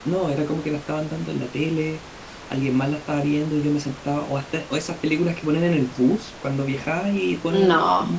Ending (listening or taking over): listening